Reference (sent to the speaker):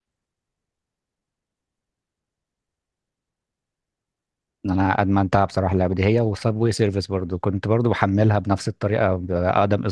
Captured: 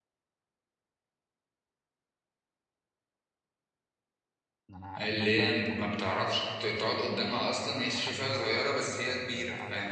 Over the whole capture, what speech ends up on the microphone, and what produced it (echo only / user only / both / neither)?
both